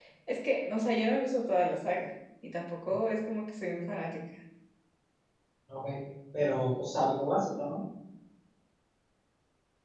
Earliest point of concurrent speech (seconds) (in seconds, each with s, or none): none